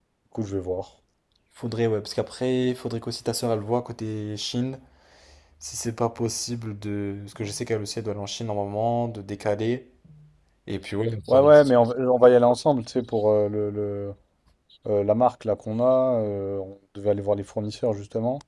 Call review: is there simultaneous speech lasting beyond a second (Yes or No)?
No